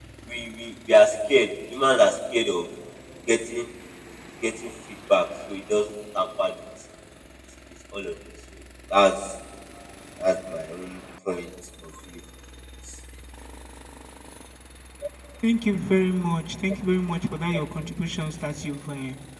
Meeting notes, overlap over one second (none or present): none